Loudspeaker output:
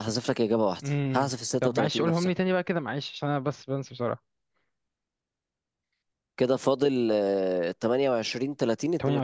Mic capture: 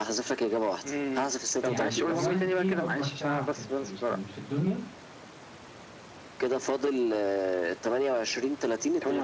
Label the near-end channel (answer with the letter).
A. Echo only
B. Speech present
B